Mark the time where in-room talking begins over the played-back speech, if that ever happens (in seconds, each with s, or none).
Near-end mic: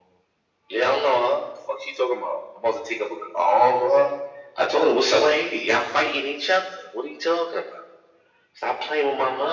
none